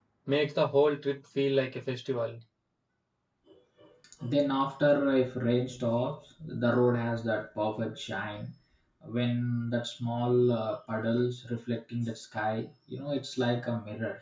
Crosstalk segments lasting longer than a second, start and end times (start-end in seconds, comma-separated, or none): none